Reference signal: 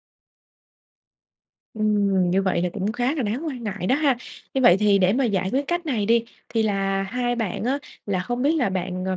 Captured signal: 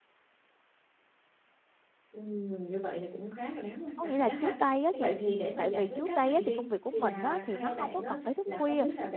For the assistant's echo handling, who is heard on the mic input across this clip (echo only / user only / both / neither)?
both